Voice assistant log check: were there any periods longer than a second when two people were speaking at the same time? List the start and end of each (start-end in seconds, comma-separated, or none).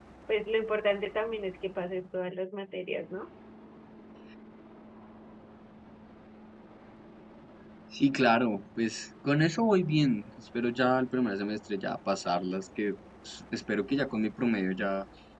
none